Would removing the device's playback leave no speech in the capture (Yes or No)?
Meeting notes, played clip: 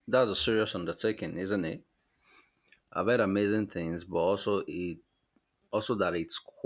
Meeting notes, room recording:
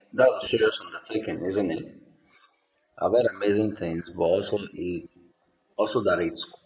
Yes